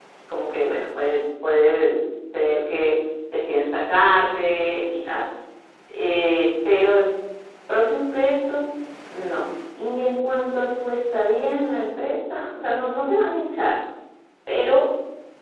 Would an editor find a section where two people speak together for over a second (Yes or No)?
No